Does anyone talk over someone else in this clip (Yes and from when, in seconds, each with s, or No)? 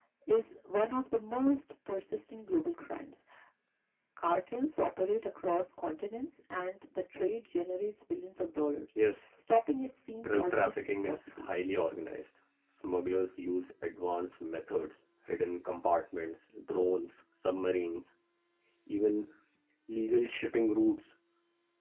Yes, from 10.2 s